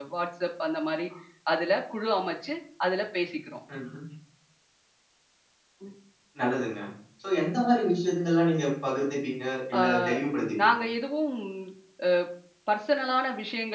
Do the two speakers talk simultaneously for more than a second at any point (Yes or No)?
No